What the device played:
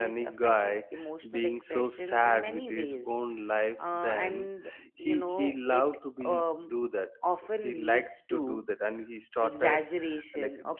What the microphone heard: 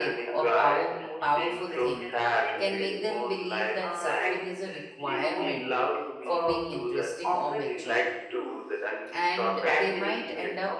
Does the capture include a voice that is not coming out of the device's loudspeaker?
Yes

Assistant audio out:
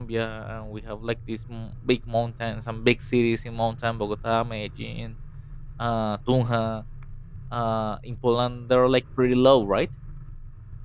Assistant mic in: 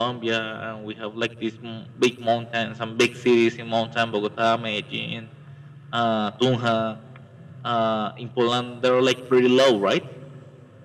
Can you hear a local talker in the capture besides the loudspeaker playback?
No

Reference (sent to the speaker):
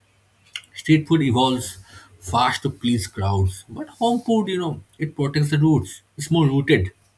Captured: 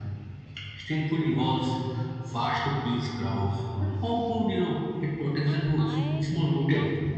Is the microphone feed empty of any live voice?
No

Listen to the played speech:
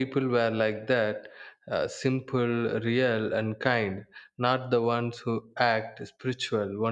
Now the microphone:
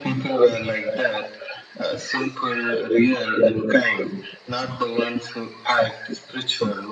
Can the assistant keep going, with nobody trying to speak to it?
Yes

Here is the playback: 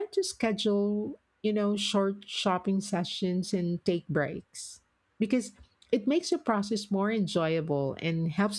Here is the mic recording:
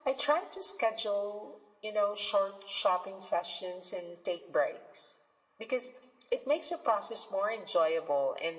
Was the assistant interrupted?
No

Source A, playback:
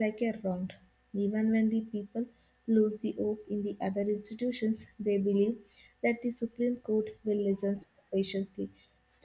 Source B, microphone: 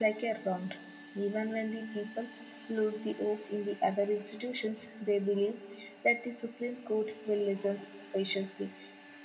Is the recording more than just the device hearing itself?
No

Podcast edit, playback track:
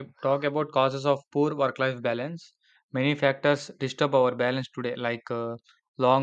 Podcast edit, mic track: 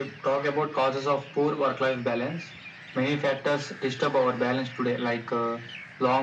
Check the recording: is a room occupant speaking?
No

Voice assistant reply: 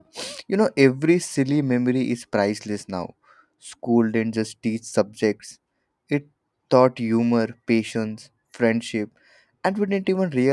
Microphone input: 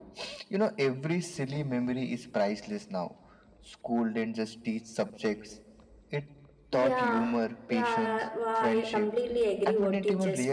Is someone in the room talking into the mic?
Yes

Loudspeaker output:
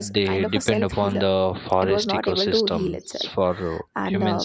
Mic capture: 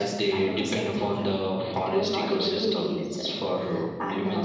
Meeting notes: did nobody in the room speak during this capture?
Yes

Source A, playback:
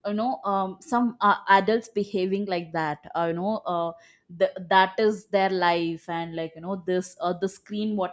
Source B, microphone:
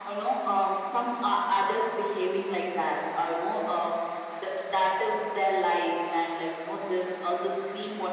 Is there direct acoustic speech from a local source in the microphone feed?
No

